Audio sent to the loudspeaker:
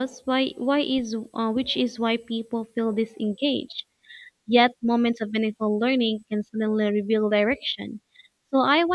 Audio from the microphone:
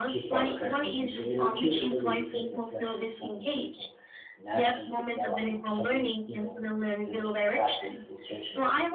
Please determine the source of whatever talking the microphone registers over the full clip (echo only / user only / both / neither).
both